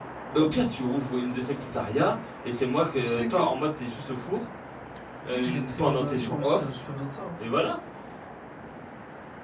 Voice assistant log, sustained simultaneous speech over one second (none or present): present